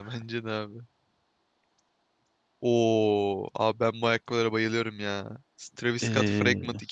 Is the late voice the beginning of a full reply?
No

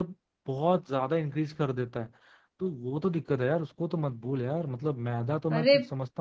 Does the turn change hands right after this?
No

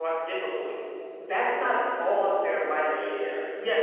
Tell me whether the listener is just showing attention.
No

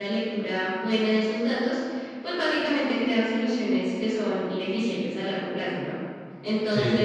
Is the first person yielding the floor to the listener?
No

